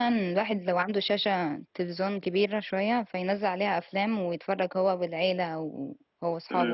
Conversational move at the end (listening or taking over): taking over